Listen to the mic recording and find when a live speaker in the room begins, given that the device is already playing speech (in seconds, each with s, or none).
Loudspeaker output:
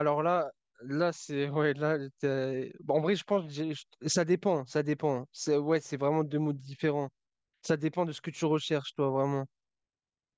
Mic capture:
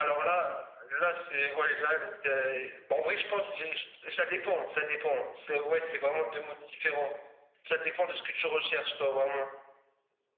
none